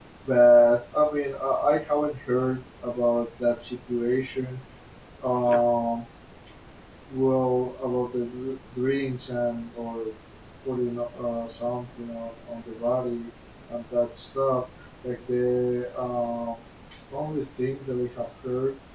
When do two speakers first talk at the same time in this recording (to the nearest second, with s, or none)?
none